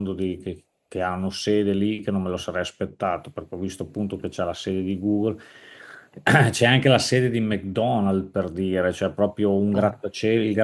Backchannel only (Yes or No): Yes